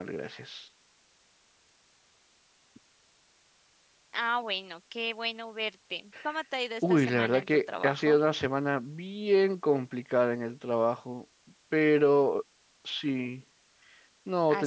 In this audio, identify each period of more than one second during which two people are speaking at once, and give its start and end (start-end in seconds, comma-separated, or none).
6.8-8.2